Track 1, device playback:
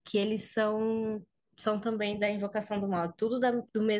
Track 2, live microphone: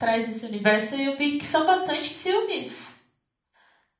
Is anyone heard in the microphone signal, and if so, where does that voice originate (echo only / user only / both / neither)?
user only